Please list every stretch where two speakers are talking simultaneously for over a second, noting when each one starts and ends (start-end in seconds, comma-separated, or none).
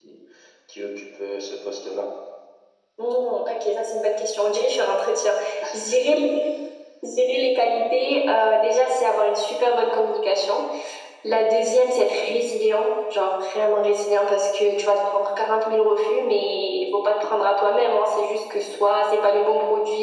none